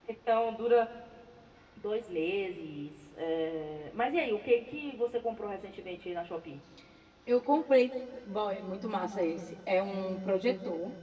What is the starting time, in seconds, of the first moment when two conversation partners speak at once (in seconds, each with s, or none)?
none